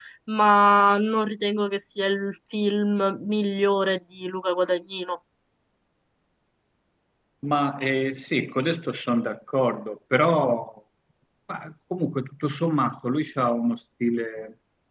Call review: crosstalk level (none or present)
none